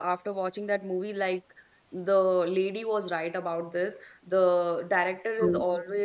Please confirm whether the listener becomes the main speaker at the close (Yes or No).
No